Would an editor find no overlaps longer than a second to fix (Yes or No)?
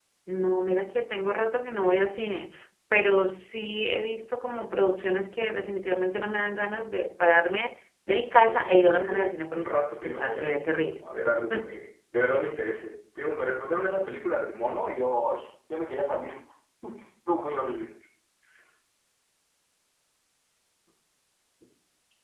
No